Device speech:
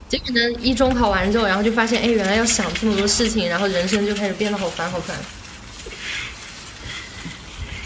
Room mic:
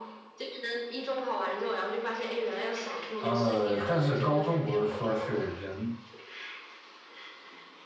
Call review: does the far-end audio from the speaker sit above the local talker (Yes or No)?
No